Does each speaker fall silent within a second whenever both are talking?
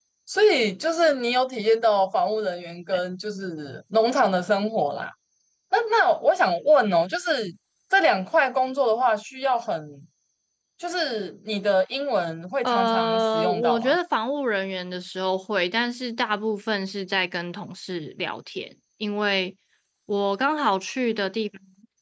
No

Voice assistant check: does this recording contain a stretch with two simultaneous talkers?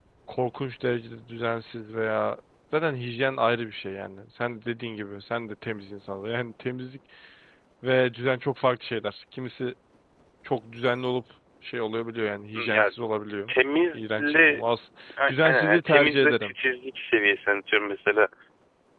Yes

